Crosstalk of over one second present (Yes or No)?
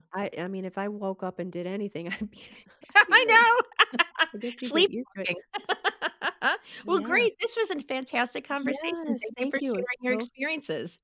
Yes